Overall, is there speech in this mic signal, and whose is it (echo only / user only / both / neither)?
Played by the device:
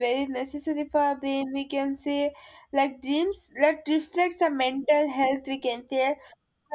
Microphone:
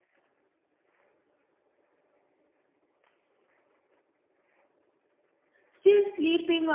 user only